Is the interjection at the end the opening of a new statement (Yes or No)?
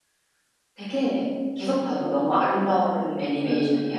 Yes